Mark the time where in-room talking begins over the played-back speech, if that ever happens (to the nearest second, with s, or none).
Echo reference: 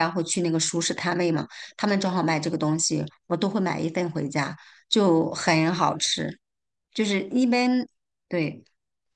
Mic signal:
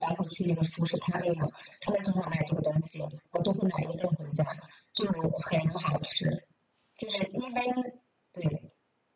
none